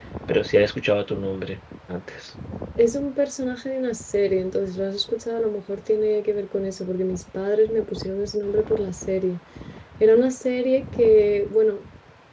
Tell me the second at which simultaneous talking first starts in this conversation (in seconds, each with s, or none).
none